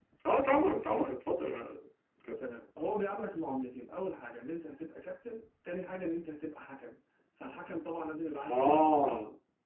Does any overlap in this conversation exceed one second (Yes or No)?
No